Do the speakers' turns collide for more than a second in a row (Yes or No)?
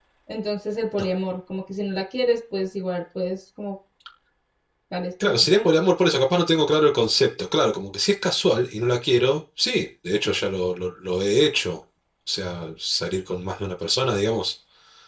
No